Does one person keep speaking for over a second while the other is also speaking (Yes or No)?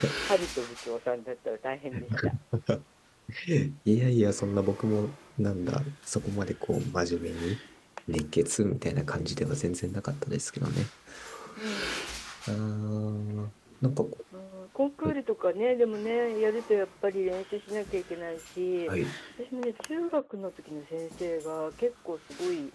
No